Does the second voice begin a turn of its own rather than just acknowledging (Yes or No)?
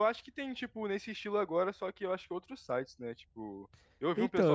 Yes